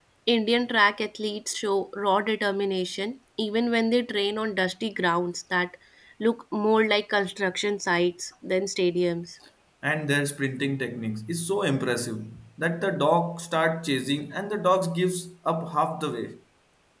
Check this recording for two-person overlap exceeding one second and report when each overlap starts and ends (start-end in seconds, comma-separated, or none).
none